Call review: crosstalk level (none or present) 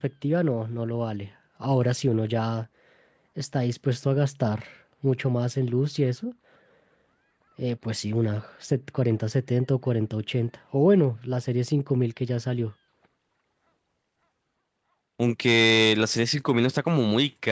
none